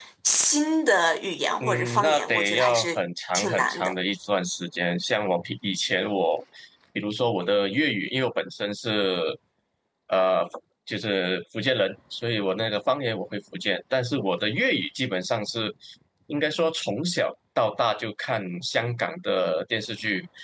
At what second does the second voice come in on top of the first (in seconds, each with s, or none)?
1.6 s